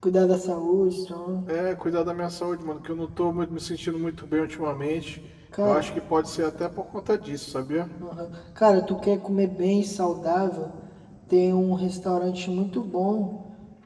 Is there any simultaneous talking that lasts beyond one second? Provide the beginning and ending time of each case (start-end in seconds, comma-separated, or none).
none